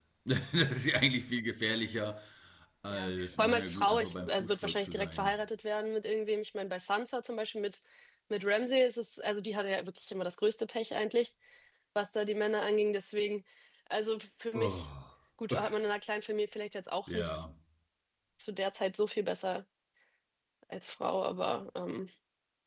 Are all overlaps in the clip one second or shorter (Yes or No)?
No